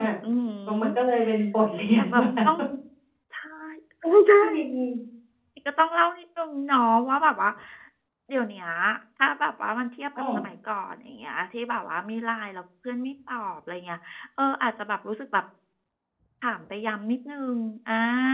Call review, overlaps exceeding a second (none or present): none